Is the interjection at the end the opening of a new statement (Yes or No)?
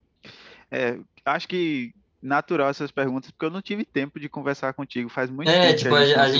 Yes